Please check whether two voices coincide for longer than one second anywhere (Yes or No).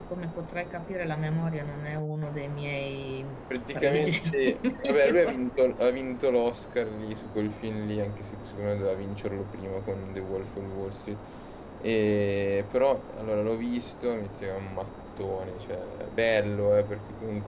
Yes